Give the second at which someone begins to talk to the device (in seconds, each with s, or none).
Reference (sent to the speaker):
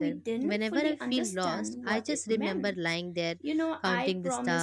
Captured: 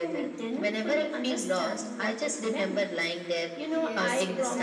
3.7 s